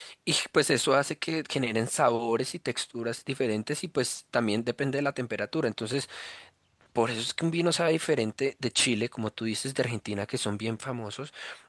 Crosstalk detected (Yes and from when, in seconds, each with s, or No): No